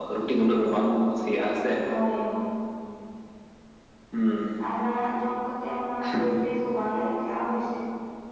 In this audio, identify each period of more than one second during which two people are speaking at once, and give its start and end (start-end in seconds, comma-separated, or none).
none